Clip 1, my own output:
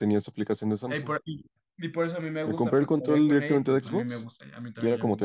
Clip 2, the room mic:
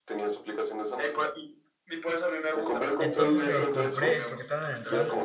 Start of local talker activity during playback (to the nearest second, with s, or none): 3 s